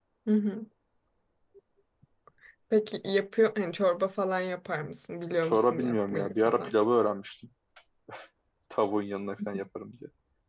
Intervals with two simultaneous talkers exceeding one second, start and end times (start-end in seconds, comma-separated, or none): 5.4-6.7